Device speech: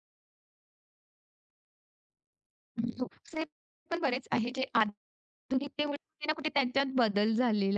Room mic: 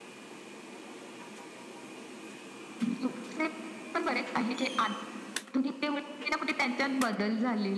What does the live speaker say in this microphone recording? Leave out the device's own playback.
none

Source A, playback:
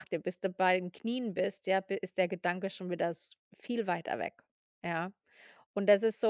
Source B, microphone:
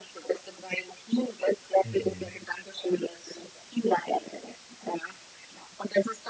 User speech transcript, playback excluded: mhm.

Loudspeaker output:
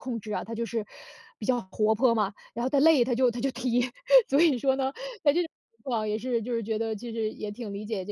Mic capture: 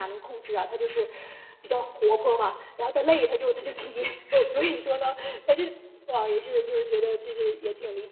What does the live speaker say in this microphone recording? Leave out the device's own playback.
none

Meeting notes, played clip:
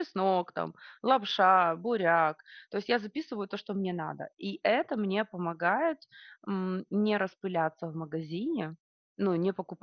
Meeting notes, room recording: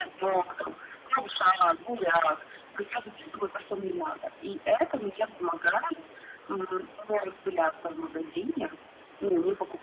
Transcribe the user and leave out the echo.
none

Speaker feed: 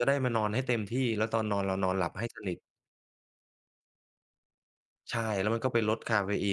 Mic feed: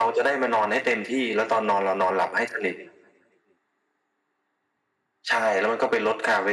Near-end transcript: none

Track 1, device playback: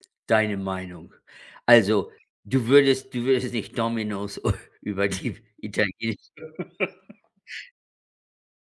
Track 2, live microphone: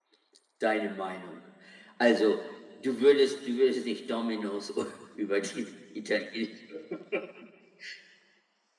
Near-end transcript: none

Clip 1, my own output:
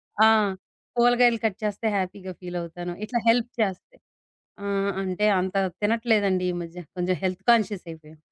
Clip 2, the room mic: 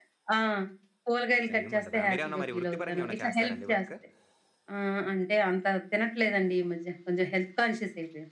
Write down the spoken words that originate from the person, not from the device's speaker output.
టైం ఉండదా? మీరేమన్నా మరి వృత్తిపరంగా ఏమన్నా చేస్తారండి వర్క్?

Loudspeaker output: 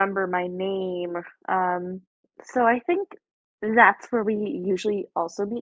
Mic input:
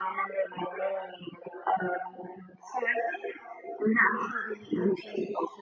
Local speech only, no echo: none

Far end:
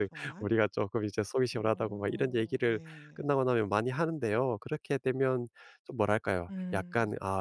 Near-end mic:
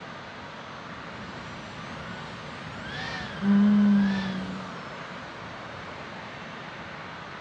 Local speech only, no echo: 음.

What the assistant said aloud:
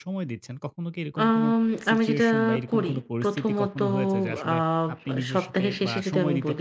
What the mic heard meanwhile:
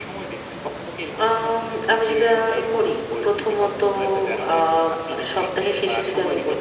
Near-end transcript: none

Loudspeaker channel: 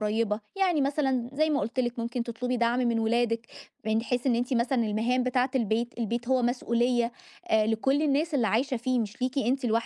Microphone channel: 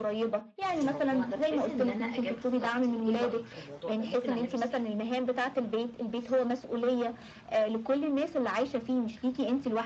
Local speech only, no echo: في الموضوع ده بحيث إن أنا أجدد طاقتي، إيه رأيك في الموضوع ده، ممكن أعمله إزاي؟

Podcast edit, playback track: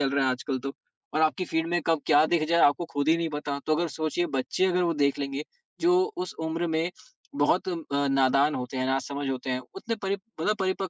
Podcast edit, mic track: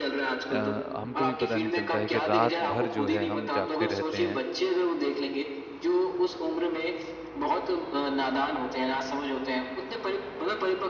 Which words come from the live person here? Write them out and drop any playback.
हमको भी पता नहीं चलता है कि रात भर जो है हम जागते रहते हैं

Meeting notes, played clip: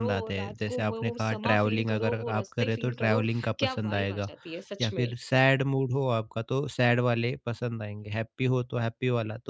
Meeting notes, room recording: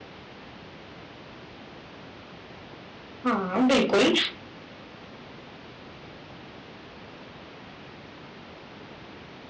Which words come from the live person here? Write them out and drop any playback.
हाँ, बिल्कुल।

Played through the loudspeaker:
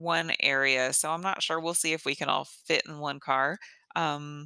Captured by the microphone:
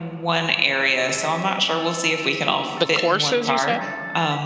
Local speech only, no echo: The courses you said?

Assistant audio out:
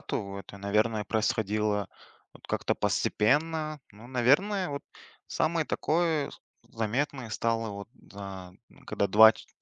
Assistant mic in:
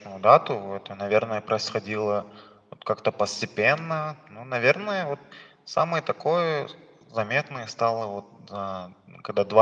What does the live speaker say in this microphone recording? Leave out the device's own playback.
none

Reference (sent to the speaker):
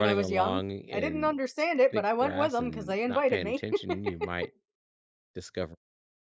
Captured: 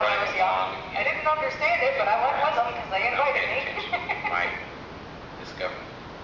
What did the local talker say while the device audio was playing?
none

